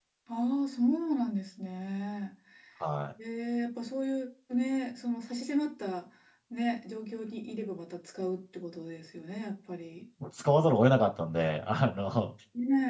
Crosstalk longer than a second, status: none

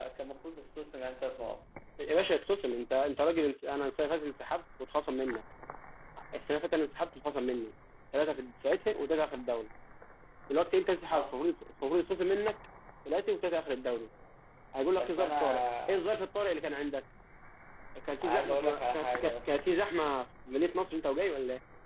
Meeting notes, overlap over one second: present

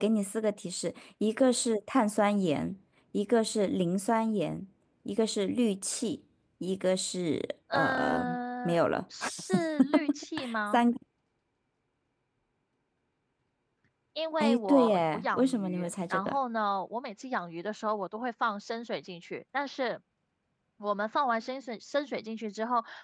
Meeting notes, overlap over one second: present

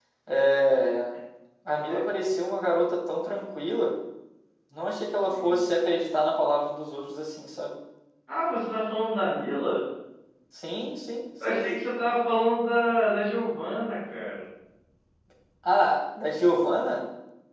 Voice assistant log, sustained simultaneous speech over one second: none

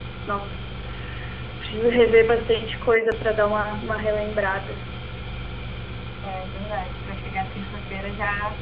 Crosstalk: none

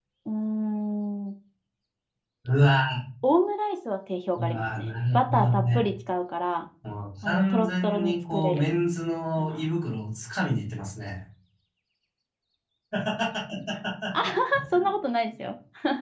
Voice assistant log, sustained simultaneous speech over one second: present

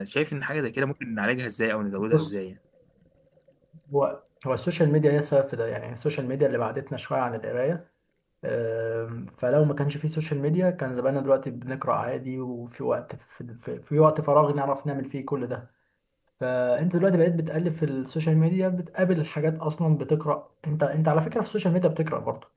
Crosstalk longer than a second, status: none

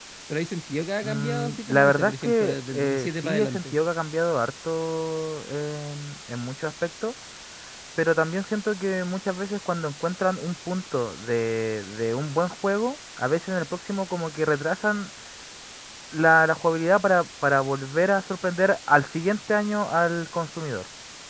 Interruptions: present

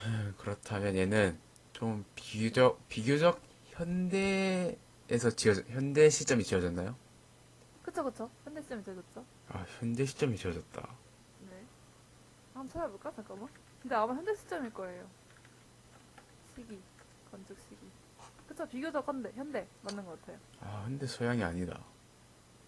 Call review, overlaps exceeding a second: none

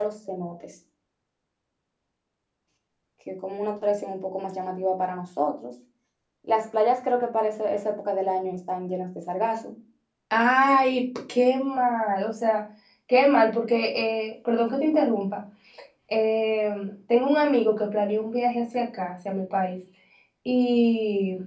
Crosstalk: none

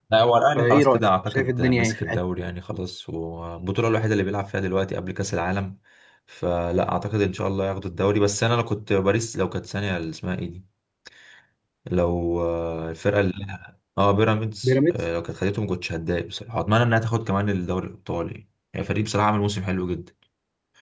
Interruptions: present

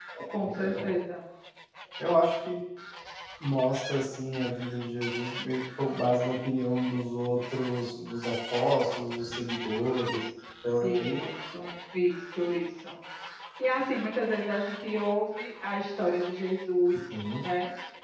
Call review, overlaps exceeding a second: none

